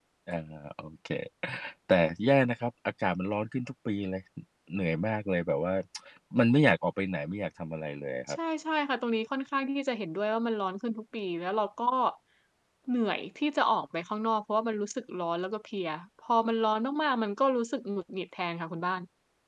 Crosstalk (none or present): none